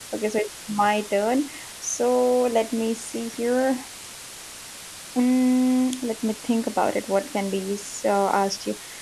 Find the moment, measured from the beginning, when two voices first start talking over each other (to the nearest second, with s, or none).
none